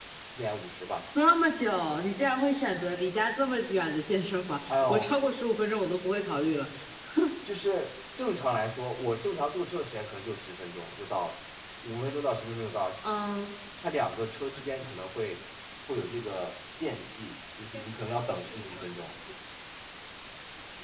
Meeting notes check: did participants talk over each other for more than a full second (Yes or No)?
No